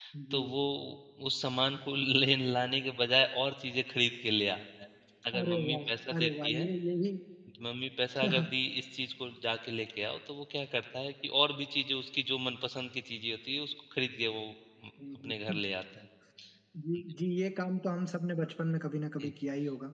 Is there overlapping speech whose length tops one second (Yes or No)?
Yes